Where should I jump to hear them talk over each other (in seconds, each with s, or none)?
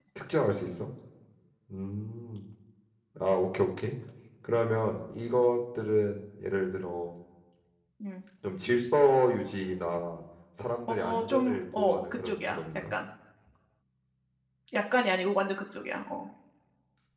10.9 s